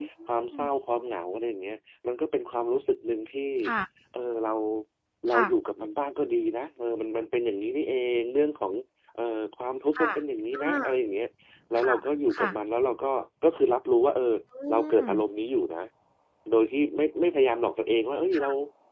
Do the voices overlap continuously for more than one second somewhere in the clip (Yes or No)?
No